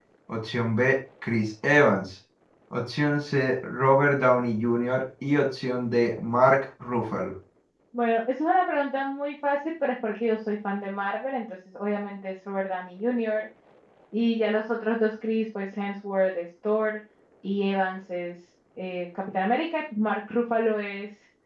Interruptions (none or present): none